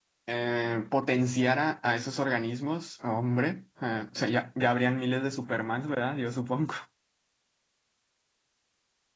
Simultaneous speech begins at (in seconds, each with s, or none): none